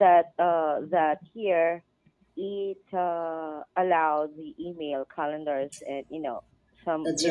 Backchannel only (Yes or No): No